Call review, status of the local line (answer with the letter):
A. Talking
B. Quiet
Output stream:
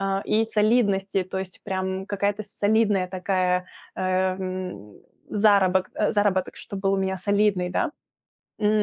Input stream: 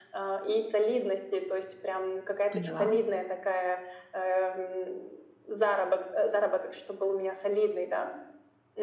A